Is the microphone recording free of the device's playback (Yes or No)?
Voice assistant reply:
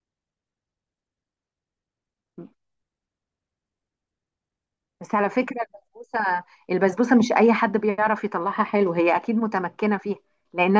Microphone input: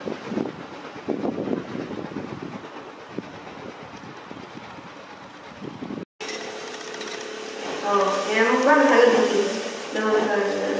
Yes